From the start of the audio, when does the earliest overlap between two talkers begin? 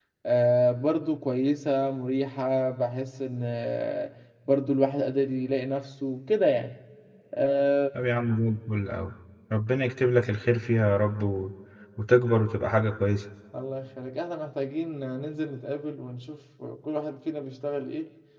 none

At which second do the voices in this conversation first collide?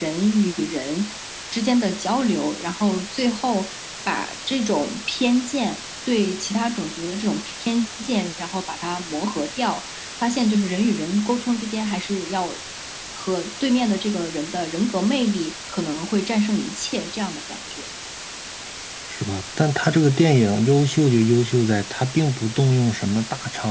none

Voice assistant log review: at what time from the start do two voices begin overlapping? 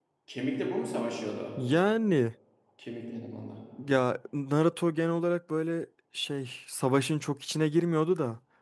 none

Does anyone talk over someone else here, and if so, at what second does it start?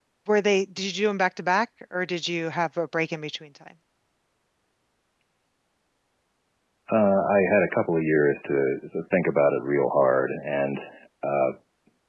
none

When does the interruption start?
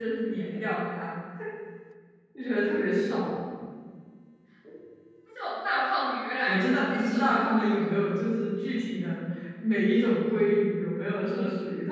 6.5 s

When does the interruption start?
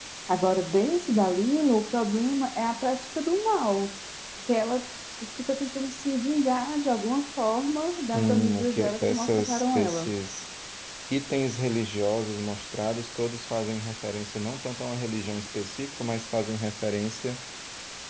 8.1 s

